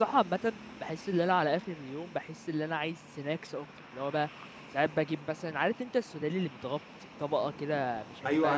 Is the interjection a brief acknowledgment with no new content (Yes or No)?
No